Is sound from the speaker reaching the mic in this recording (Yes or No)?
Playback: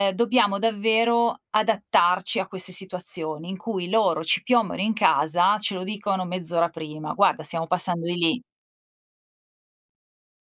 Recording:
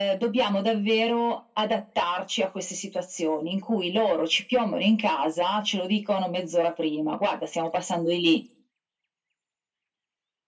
Yes